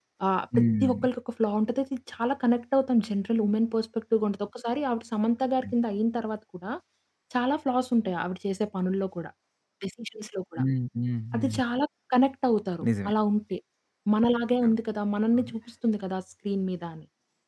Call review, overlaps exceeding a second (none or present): none